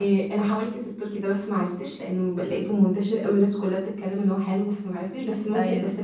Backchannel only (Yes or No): Yes